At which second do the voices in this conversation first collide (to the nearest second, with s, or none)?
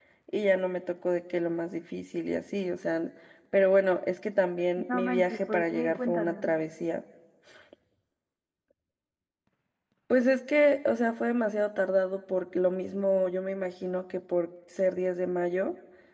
5 s